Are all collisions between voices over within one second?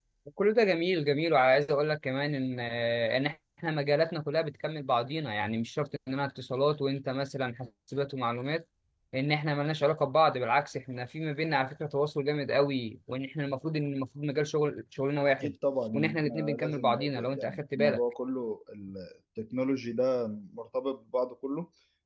No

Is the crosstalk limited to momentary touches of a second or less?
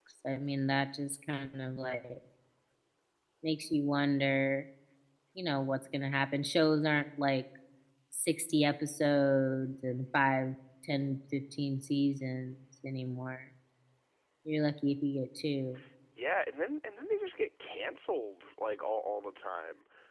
Yes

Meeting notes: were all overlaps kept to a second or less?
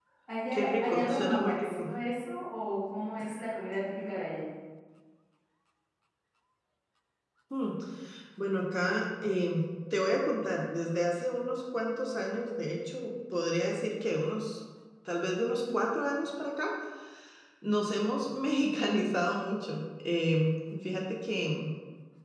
No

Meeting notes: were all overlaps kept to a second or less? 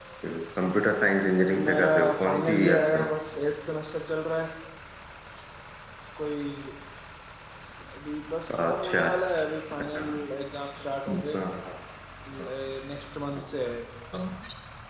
No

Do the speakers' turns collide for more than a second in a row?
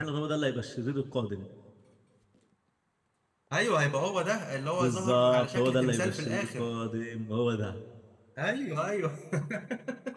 Yes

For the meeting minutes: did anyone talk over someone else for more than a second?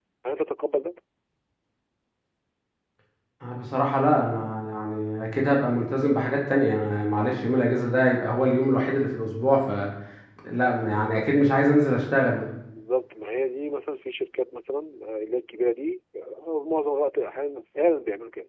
No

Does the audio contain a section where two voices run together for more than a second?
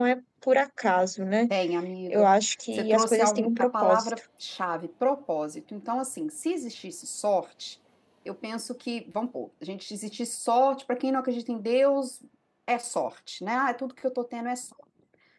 Yes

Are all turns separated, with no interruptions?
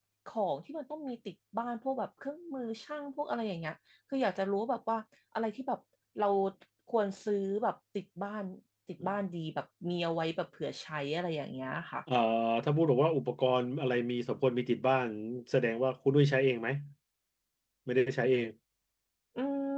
Yes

